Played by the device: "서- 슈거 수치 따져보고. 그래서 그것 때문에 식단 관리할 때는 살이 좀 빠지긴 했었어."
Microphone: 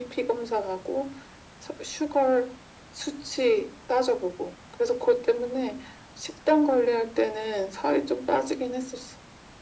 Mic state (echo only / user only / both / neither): echo only